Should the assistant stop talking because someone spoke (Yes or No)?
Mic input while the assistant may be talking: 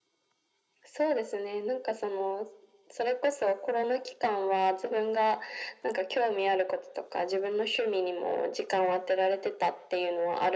No